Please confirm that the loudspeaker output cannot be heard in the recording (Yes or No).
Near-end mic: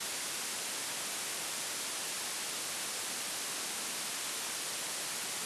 Yes